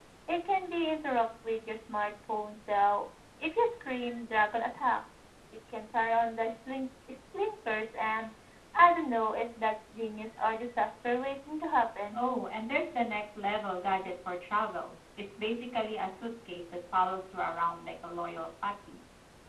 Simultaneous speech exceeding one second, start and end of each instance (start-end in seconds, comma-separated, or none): none